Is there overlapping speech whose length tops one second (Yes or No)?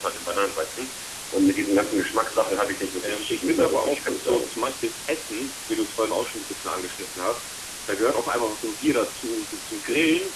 Yes